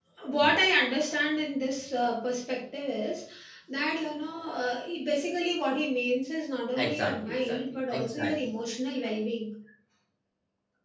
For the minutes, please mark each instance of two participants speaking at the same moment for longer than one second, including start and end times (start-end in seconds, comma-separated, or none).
6.8-8.3